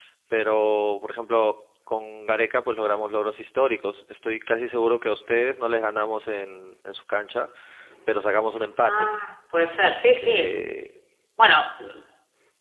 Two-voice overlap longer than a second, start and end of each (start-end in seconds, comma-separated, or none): none